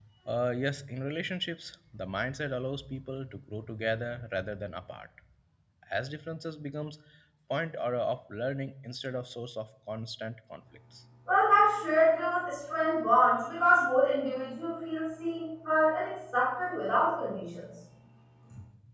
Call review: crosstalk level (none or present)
none